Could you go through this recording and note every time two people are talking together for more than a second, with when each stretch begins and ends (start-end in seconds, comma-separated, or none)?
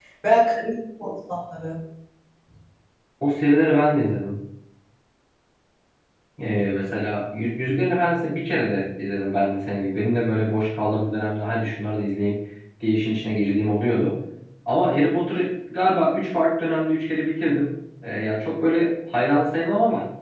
none